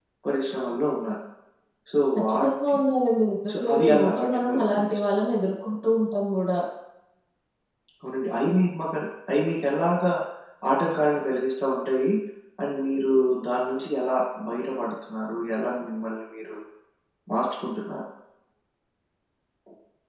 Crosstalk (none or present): present